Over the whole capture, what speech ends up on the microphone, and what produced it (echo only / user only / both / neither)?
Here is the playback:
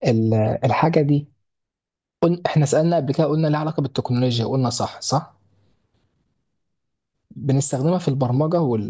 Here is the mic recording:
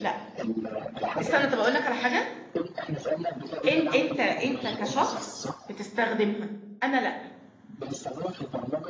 both